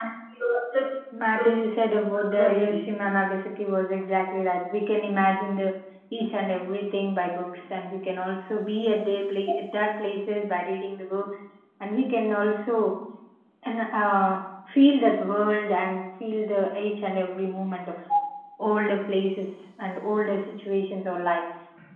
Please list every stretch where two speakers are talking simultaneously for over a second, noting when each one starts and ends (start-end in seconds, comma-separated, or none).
none